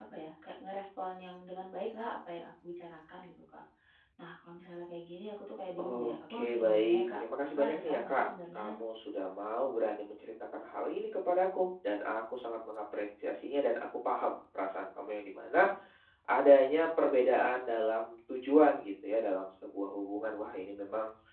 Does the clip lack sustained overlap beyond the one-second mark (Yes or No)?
No